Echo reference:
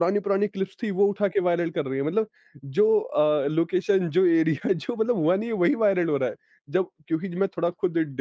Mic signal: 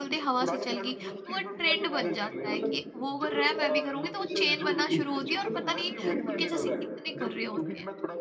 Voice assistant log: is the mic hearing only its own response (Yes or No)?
No